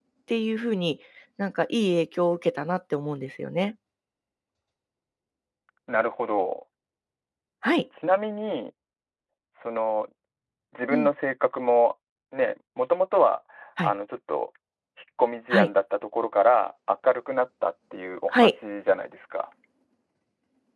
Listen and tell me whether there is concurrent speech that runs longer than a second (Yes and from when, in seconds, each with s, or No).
No